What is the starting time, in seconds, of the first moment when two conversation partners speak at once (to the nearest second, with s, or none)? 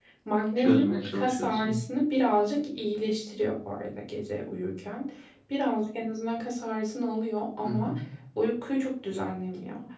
1 s